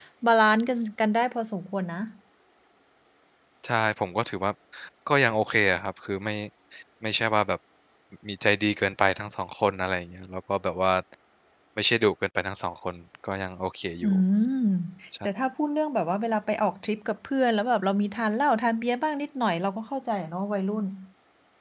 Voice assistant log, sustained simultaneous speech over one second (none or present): none